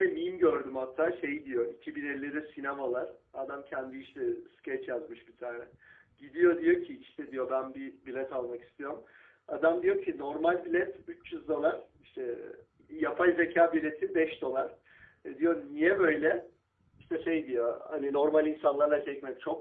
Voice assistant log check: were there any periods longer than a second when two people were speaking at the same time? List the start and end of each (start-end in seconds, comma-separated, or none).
none